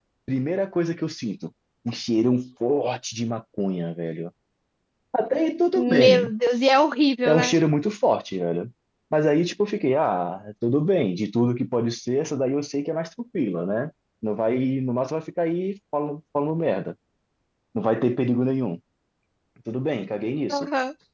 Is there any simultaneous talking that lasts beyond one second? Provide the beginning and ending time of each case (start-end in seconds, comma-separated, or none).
none